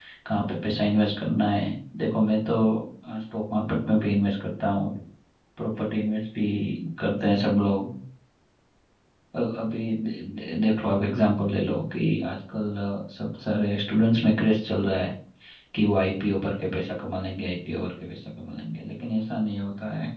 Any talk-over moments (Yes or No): No